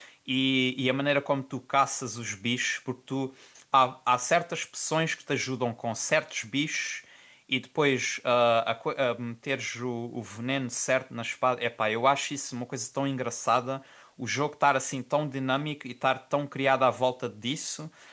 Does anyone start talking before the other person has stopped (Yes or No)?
No